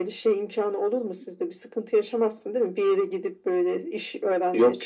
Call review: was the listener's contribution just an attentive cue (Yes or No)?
No